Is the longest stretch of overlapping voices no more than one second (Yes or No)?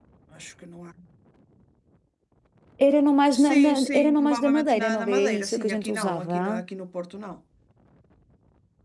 No